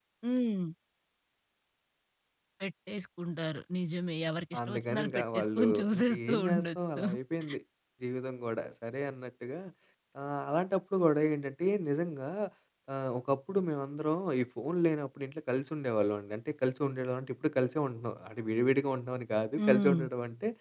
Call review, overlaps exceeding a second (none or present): present